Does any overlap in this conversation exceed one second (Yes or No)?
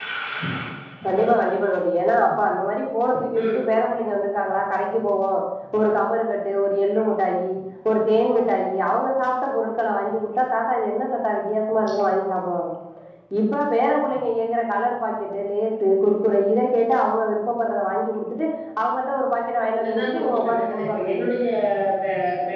Yes